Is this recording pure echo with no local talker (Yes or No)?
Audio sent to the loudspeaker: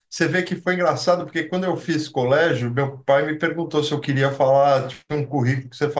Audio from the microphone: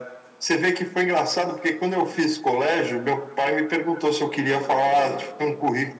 No